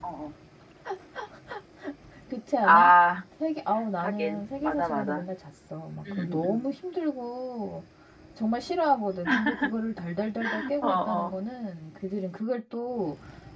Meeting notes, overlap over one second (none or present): present